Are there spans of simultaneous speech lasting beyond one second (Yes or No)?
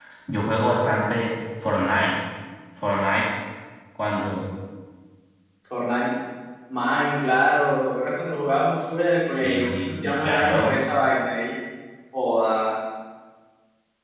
Yes